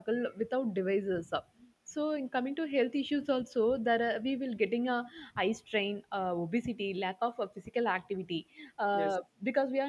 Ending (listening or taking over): listening